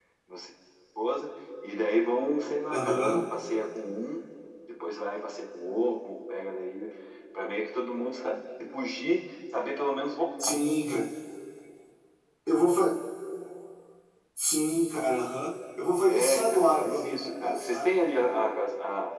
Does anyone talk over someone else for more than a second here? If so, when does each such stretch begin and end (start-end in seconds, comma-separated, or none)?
16.0-18.0